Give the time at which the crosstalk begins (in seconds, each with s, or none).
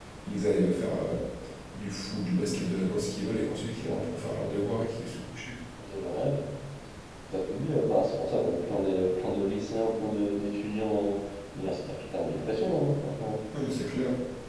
none